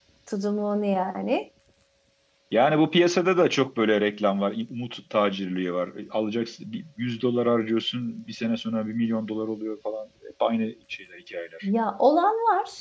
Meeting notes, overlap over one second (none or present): none